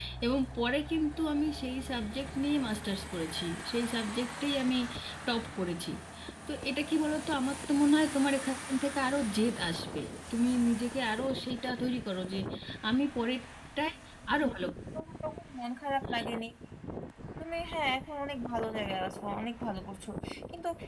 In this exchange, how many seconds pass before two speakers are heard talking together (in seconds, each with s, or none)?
none